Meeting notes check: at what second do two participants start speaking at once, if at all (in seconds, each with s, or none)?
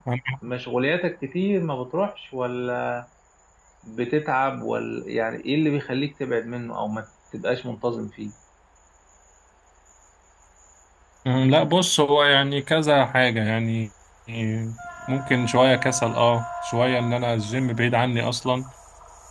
none